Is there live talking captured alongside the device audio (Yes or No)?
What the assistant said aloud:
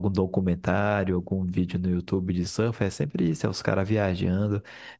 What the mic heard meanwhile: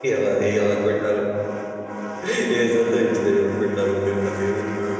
Yes